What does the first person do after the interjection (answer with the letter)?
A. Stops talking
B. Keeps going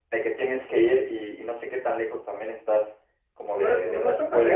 A